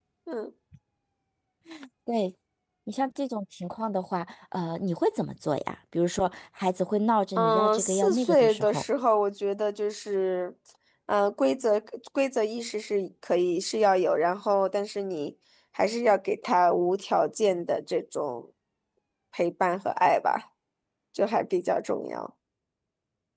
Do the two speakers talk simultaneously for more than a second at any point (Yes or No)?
Yes